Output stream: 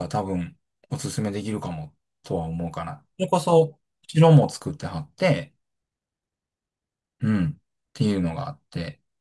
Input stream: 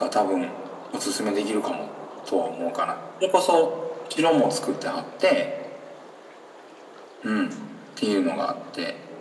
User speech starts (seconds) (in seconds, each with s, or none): none